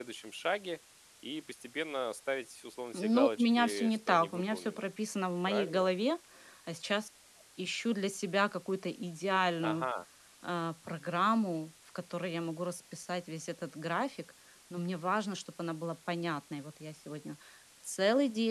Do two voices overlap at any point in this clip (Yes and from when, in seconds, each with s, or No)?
Yes, from 2.9 s